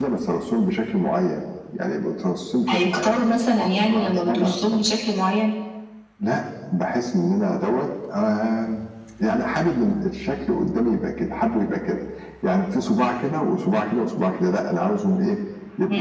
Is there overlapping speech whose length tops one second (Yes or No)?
Yes